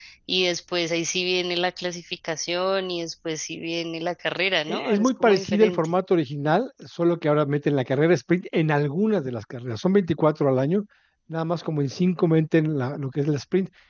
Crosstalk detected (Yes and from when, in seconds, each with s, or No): Yes, from 4.7 s